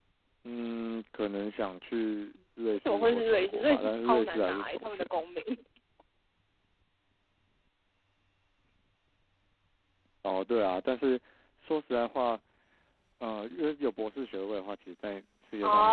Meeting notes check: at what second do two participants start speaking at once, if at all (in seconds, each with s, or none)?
2.8 s